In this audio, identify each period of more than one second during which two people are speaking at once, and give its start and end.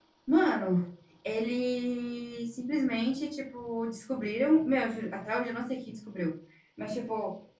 none

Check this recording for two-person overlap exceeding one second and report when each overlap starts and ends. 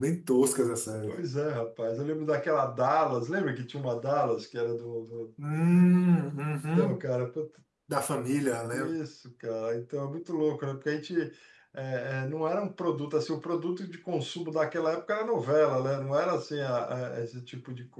none

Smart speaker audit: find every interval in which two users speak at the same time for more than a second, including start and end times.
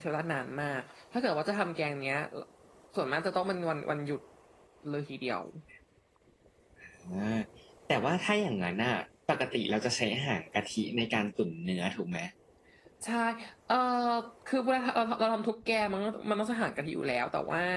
none

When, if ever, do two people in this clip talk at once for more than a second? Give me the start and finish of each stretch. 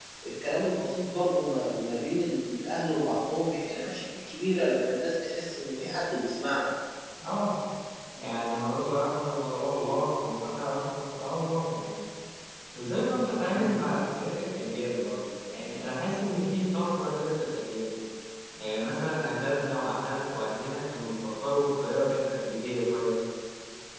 none

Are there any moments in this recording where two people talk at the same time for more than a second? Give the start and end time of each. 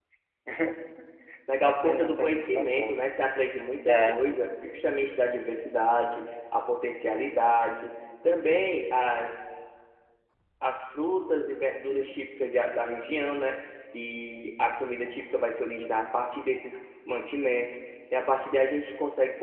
1.6-3.0

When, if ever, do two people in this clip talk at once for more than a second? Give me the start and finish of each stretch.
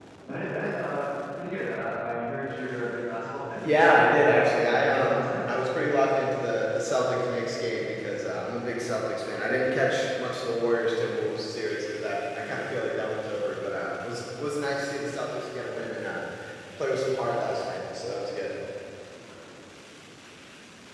3.5-5.2

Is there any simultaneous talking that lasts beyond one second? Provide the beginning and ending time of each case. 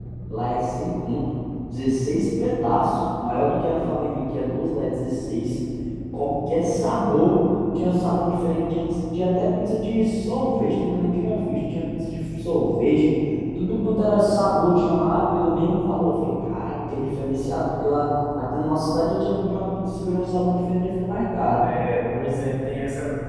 none

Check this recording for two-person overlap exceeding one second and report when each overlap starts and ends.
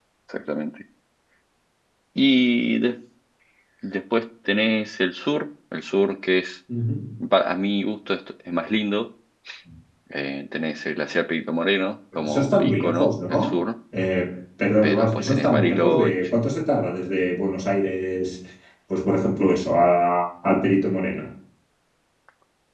12.2-13.5, 14.8-16.4

